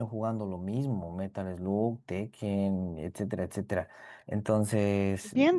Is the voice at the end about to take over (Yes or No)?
Yes